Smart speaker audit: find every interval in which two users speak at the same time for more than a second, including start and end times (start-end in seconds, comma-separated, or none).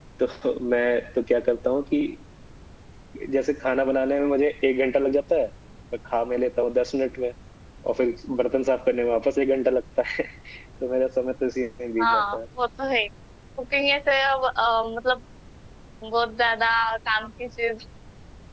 none